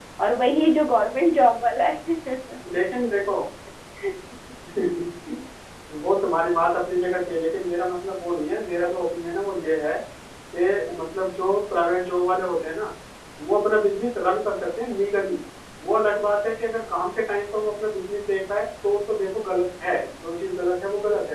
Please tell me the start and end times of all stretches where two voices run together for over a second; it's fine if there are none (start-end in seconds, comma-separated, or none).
none